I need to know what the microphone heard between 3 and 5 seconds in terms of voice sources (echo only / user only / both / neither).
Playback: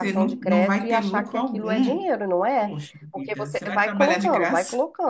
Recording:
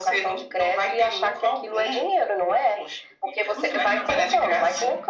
both